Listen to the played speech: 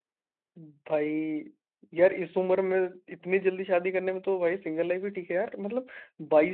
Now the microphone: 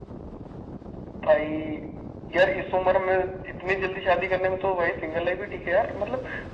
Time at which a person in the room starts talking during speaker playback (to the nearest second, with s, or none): none